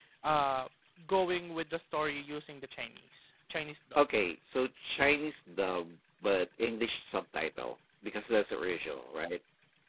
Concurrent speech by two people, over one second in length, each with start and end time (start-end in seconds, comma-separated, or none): none